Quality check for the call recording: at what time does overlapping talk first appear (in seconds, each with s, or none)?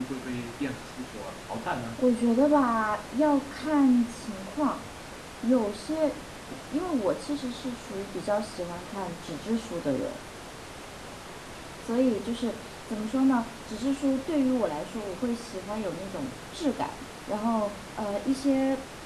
none